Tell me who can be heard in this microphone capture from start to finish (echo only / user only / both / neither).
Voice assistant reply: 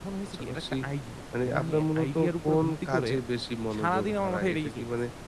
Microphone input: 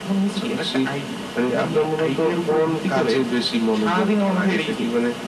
echo only